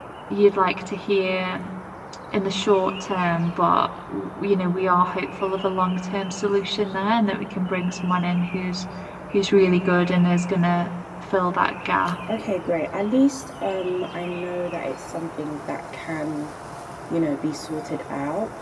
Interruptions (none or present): none